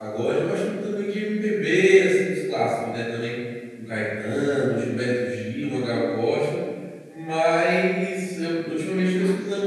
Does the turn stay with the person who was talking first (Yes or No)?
Yes